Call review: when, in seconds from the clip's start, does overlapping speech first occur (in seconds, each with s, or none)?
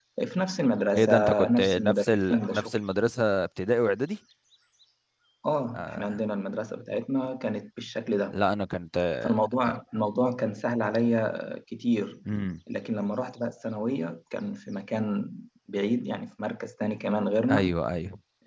1.0 s